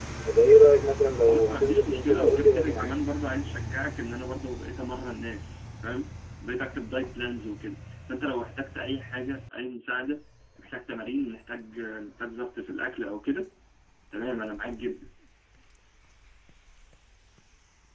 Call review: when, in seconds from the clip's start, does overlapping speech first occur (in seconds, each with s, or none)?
1.2 s